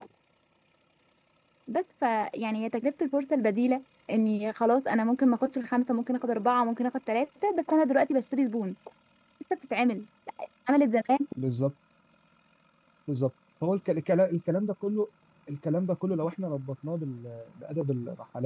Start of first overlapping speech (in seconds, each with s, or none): none